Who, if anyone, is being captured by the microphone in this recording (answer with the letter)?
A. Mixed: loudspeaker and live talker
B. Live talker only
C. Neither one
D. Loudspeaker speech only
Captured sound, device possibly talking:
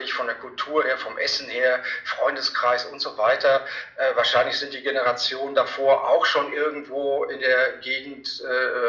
D